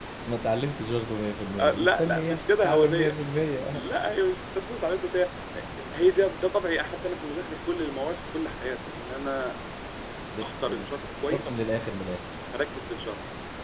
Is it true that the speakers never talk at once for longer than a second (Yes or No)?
No